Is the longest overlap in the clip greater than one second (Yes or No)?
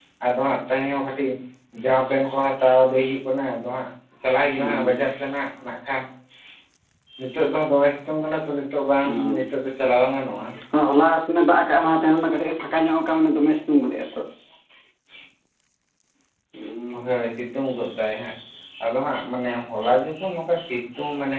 No